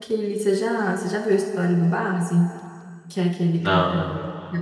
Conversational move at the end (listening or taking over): listening